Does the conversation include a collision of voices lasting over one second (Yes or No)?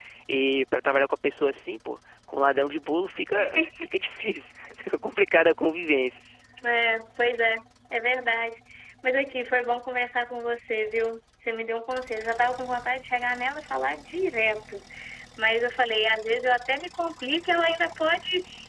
No